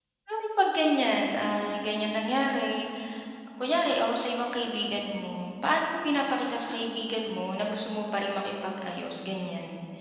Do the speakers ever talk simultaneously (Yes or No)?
No